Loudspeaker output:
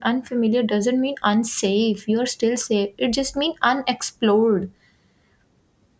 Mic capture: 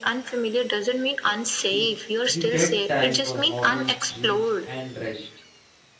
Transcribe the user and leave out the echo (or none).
You you get time for hobbies, dreams, and rest.